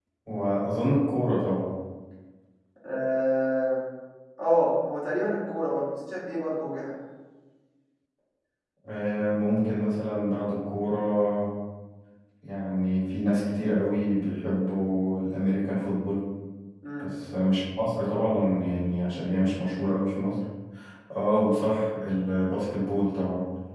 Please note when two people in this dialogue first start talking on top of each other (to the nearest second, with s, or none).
none